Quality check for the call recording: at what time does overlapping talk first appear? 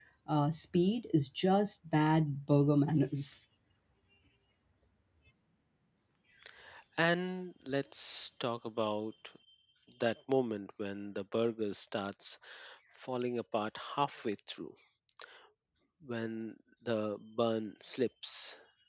none

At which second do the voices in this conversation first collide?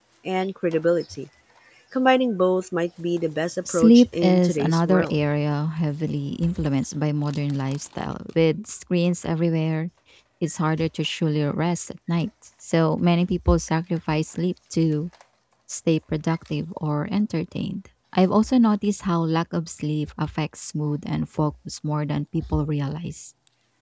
4 s

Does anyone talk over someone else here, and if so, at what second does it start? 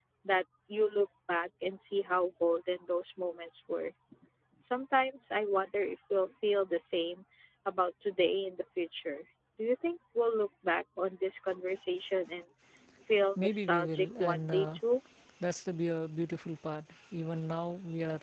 13 s

